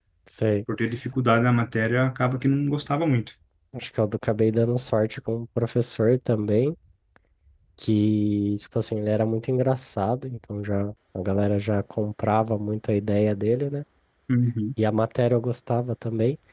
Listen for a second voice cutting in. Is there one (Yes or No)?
No